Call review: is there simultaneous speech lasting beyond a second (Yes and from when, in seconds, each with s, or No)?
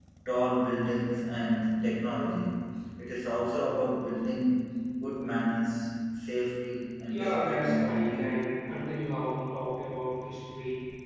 Yes, from 7.1 s